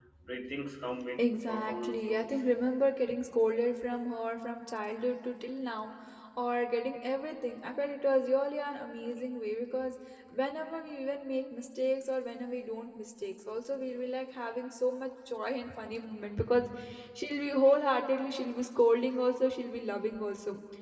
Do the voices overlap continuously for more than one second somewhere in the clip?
Yes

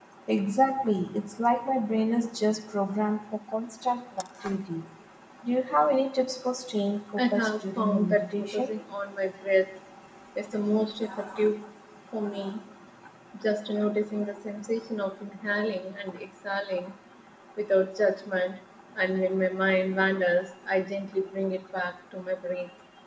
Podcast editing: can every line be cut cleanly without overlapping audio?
No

